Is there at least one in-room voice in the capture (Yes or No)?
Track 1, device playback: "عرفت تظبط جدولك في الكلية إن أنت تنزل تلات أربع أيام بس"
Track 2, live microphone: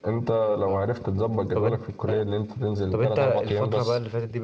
Yes